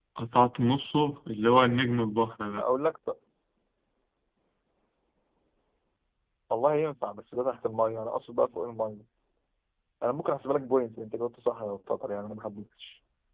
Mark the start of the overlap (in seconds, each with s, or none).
none